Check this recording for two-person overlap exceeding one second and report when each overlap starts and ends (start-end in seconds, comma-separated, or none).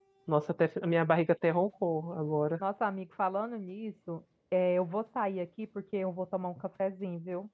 none